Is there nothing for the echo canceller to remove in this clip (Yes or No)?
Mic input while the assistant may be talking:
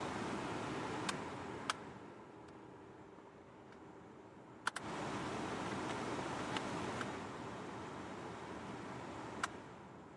Yes